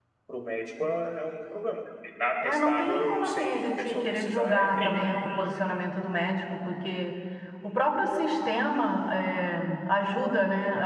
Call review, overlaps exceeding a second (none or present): present